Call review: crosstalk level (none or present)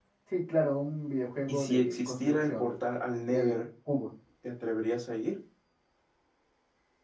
present